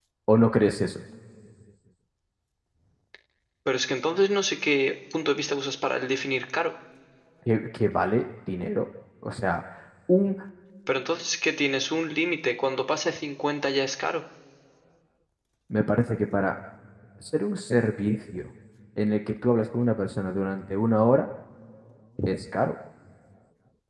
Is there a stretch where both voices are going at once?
No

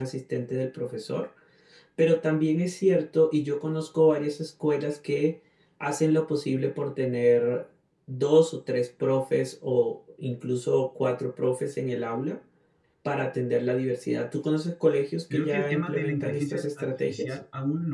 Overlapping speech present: Yes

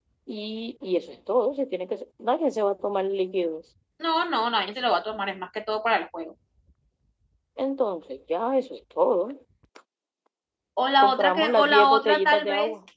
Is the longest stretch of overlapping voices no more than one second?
No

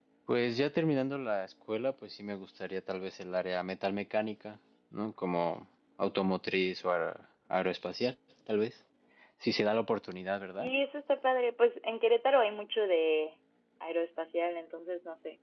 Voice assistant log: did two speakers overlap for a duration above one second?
No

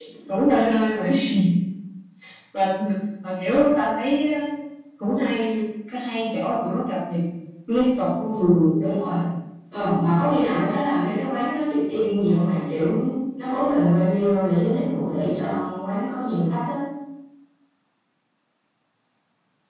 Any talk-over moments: No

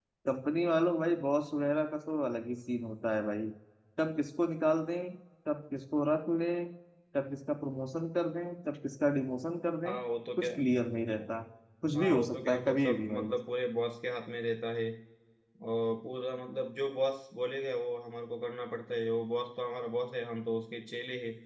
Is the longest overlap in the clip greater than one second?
Yes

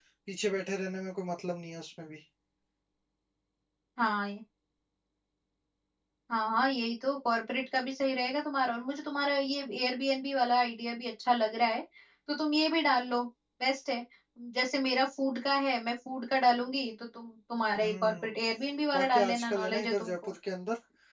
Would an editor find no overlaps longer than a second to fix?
No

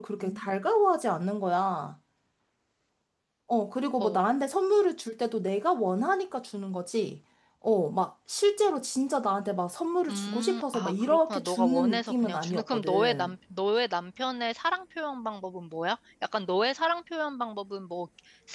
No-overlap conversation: No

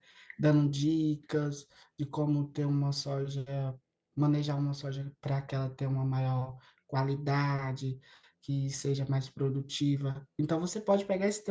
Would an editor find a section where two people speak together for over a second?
No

